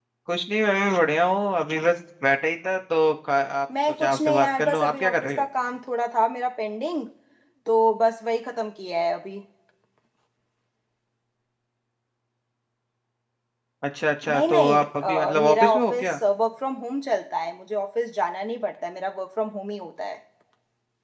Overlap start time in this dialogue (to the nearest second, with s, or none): 4 s